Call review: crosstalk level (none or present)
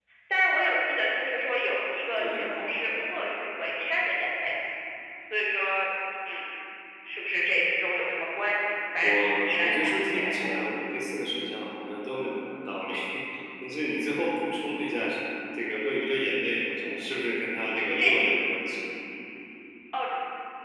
present